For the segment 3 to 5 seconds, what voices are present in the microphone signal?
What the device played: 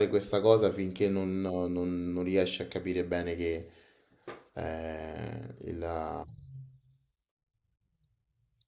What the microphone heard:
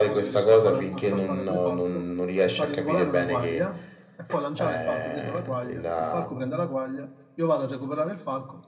both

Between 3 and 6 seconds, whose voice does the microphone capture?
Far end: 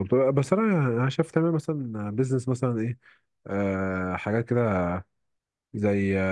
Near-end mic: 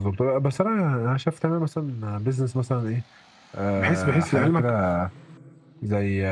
both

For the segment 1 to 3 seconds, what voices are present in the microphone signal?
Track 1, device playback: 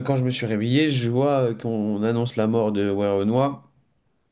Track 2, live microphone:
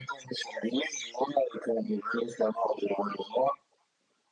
echo only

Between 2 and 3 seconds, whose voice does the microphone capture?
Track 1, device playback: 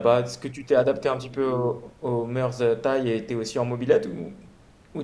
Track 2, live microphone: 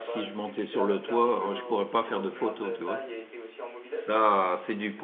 both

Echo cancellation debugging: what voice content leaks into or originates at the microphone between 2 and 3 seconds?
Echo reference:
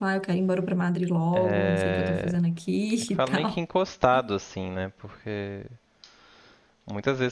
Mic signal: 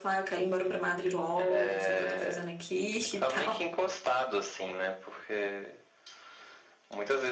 echo only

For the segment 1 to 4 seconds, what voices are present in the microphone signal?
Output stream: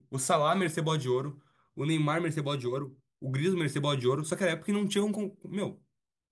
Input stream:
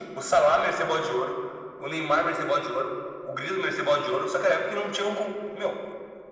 echo only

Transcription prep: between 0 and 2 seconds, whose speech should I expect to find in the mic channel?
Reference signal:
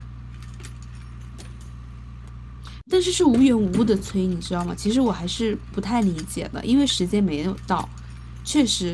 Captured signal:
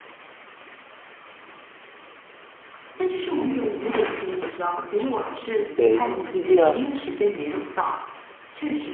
neither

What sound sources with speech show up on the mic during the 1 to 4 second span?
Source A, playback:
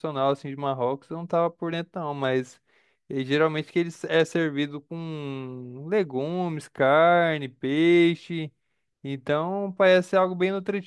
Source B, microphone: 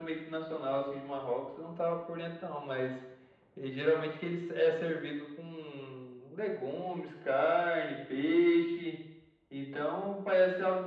echo only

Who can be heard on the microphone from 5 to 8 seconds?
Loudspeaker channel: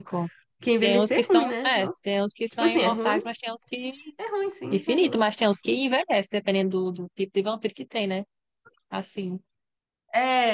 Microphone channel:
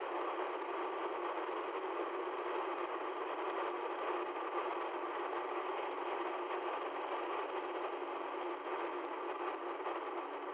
neither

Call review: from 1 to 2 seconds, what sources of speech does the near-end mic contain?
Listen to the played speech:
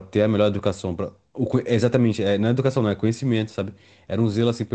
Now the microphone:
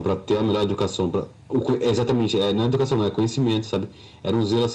echo only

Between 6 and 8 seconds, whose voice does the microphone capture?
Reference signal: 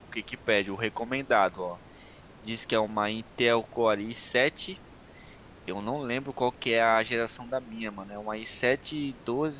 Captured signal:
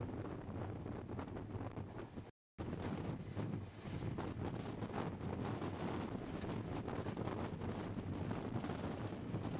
neither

